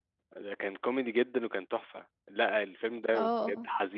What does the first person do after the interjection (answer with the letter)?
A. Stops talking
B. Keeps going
B